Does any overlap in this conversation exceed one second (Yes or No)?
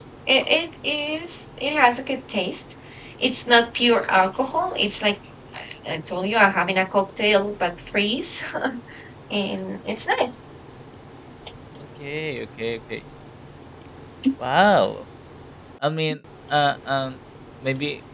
No